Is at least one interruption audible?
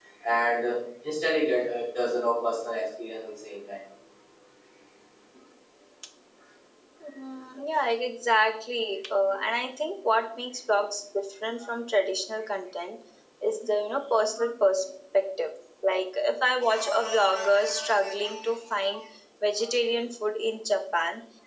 No

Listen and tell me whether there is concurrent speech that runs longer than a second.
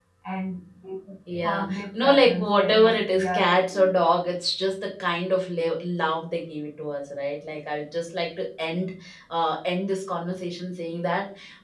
Yes, from 1.4 s

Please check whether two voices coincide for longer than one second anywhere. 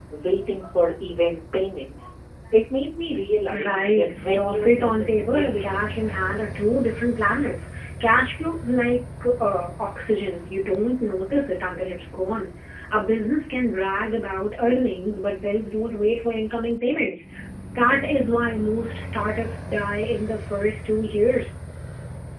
Yes, from 3.5 s

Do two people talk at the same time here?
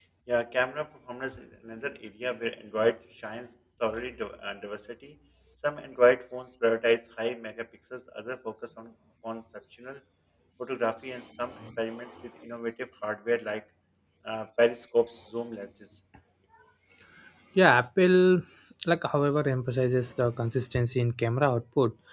No

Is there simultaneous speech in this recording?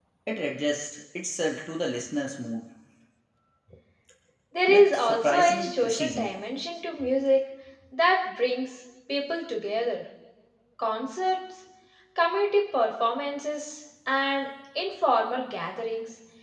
Yes, from 4.7 s

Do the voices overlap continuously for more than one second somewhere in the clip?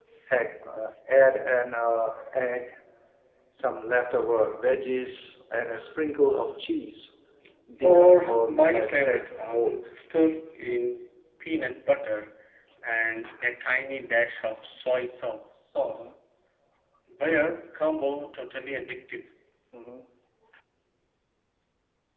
Yes, from 7.8 s

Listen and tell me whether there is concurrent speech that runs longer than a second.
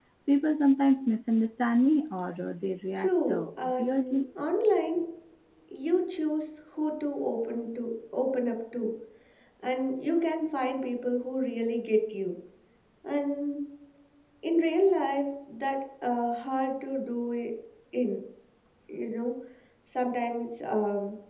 Yes, from 3.0 s

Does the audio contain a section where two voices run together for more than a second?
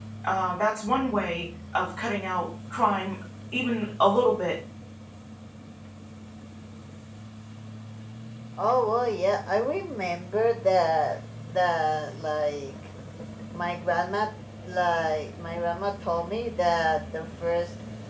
No

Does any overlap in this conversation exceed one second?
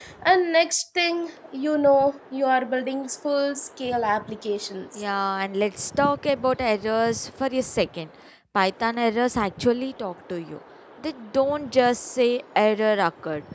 No

